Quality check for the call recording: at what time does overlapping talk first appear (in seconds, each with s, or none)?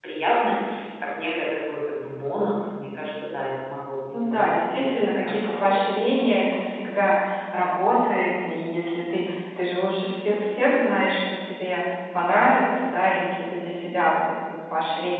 4.1 s